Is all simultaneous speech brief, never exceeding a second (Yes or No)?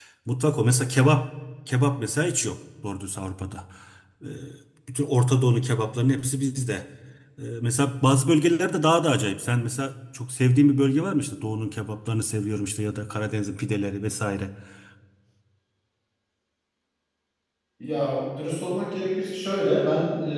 Yes